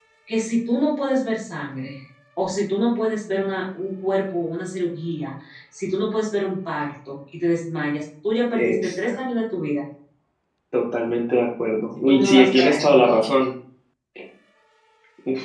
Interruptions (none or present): present